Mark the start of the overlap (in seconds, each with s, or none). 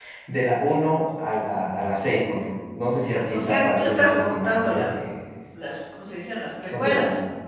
3.3 s